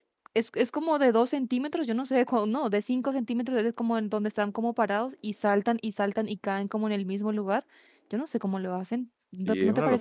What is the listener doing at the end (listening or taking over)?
taking over